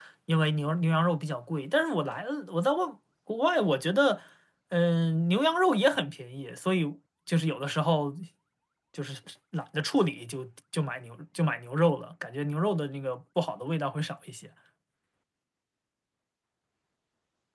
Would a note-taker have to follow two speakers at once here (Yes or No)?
No